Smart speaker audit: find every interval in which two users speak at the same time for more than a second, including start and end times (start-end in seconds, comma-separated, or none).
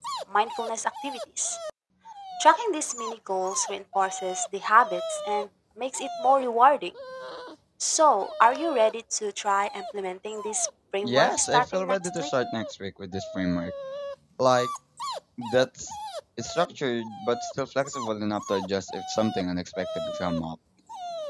11.0-12.3